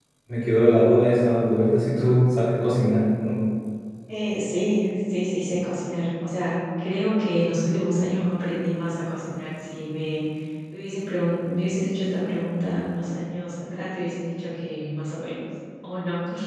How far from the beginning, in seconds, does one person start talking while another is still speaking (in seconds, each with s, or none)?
none